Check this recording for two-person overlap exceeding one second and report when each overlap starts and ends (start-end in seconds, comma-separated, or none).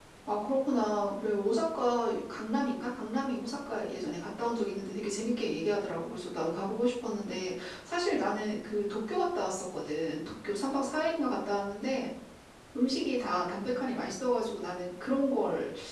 none